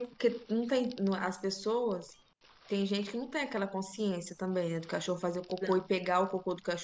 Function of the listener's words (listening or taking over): listening